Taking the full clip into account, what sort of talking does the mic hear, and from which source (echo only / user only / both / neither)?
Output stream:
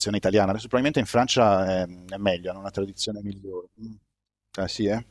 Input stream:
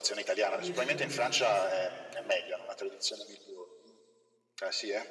both